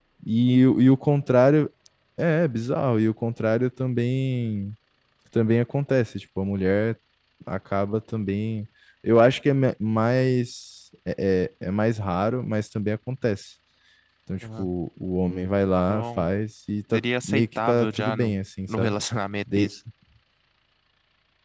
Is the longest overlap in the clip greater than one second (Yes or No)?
Yes